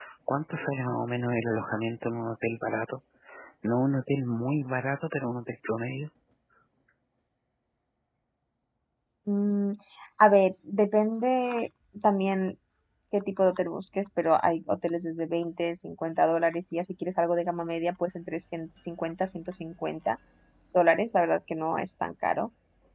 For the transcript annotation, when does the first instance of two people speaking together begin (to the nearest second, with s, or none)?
none